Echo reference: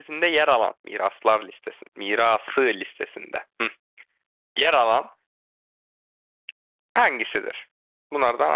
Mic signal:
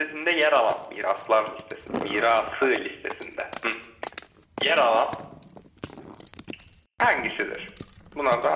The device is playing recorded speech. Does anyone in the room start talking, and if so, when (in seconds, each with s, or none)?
none